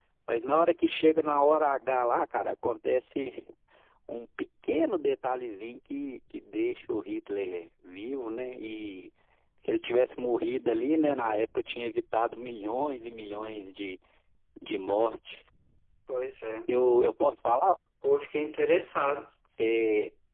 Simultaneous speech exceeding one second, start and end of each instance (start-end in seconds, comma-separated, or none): none